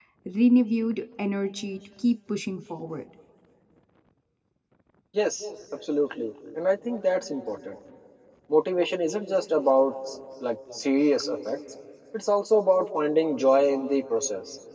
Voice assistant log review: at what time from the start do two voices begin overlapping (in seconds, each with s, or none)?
none